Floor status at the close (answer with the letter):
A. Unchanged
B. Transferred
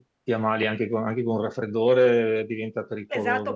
B